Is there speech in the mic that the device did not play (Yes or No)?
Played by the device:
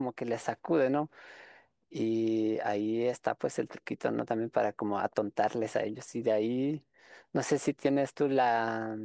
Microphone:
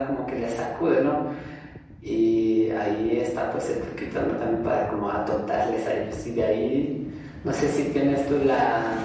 No